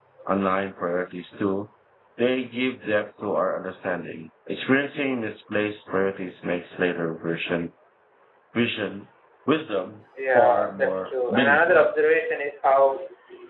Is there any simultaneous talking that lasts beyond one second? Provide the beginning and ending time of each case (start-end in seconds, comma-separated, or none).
10.3-11.9